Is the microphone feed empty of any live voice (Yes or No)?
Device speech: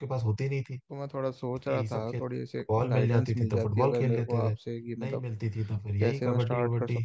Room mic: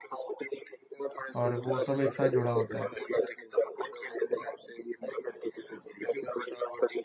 No